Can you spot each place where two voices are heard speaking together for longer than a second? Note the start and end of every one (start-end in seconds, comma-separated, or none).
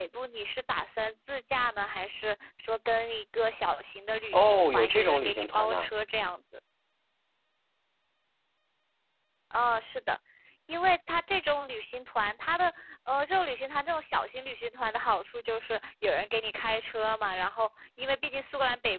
4.3-5.9